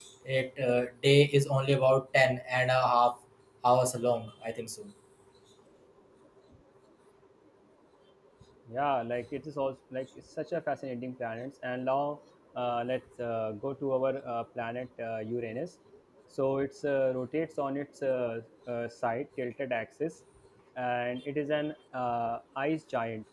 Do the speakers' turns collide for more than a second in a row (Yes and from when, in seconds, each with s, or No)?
No